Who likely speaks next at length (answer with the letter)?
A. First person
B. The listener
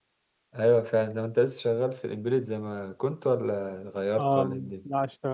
B